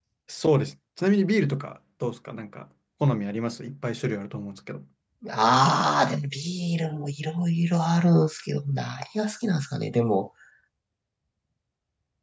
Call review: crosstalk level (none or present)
none